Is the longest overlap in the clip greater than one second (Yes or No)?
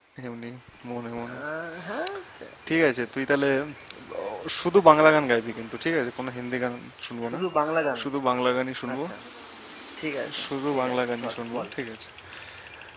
Yes